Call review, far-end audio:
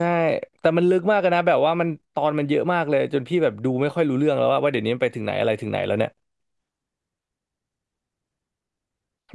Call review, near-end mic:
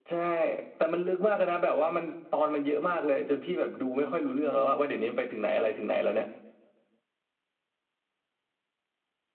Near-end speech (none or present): none